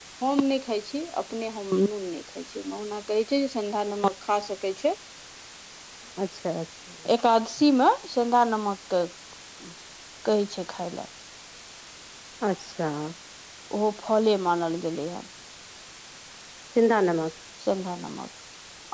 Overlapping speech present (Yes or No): No